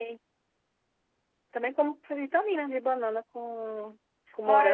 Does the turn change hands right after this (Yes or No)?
Yes